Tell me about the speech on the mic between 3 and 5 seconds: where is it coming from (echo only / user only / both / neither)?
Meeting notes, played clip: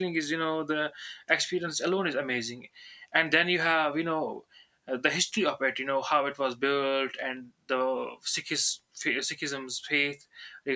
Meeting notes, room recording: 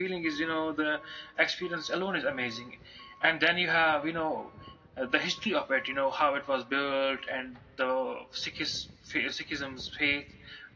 echo only